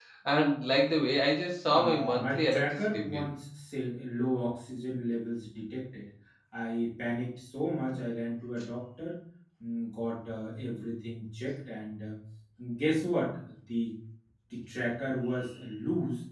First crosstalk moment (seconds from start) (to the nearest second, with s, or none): 2 s